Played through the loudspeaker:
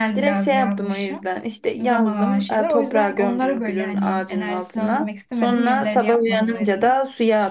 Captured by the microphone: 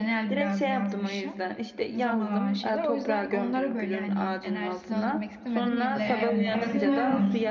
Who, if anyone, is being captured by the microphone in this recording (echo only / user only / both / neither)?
both